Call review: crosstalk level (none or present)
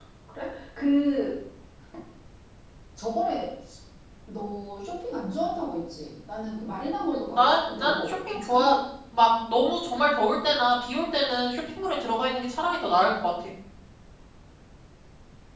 present